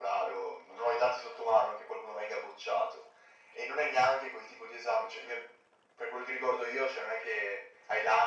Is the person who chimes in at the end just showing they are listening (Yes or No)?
Yes